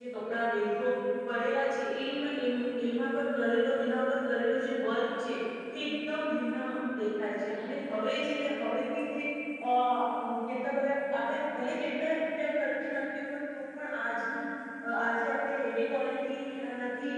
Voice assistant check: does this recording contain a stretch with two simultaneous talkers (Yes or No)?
No